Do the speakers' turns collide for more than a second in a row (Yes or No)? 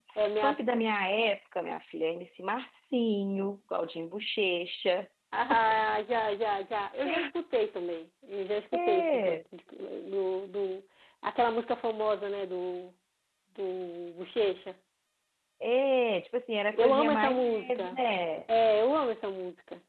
Yes